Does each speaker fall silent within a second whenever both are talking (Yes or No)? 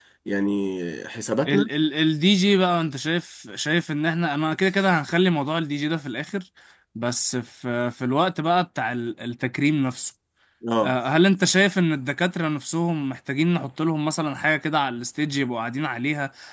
Yes